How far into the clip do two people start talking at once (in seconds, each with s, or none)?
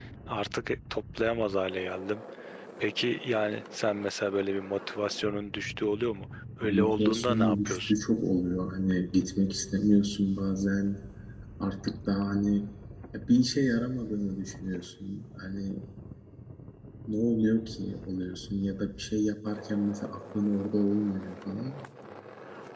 6.6 s